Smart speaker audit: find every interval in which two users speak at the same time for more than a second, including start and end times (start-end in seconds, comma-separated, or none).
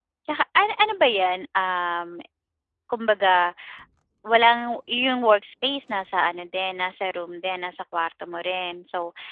none